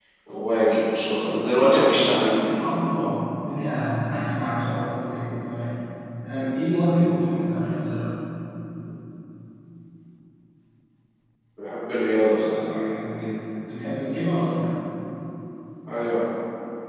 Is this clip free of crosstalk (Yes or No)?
Yes